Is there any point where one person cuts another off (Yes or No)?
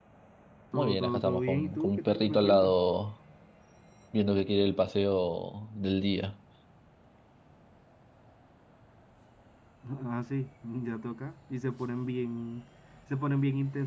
Yes